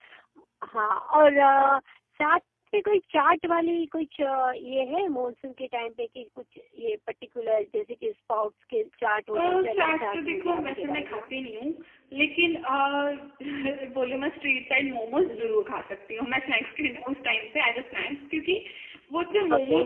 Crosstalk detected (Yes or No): Yes